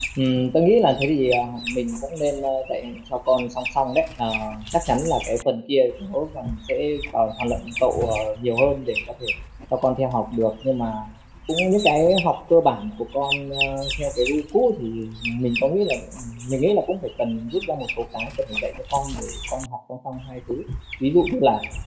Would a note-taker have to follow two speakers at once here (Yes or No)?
No